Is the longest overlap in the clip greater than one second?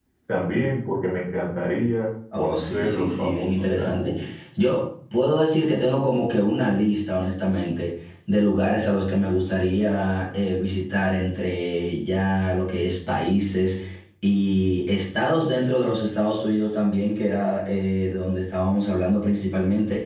Yes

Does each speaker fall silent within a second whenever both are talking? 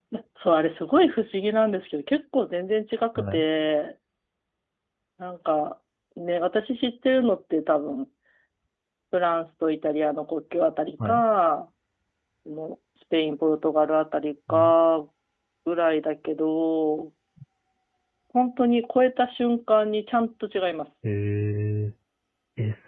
Yes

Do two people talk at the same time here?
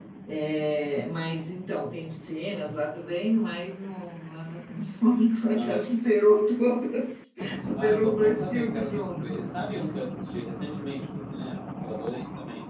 Yes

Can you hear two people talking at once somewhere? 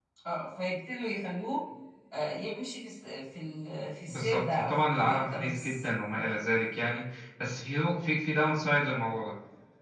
Yes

